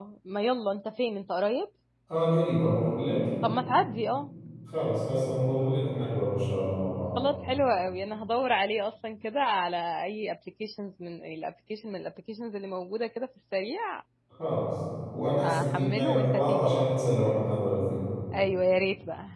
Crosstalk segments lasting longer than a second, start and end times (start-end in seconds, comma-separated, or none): 15.4-16.9